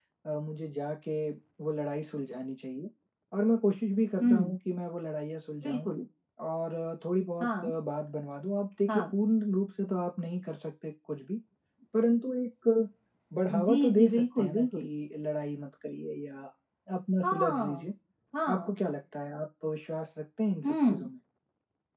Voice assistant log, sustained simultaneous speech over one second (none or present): present